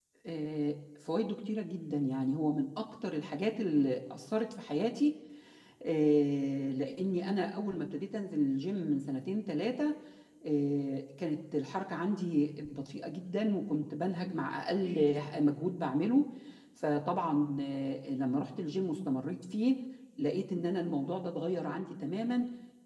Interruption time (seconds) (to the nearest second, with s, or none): none